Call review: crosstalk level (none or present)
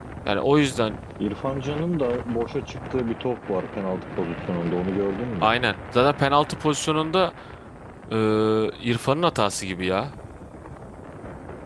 none